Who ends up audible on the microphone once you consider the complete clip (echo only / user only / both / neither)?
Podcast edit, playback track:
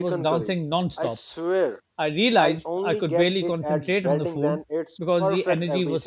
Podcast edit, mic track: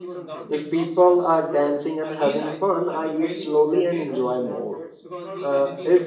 both